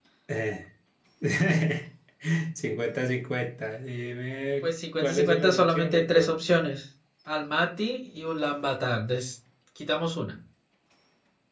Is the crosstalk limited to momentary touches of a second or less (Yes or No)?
No